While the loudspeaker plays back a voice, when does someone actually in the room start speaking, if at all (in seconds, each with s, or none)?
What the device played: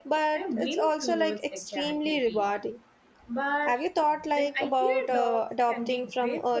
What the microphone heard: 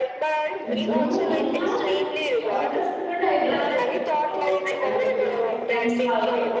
0.7 s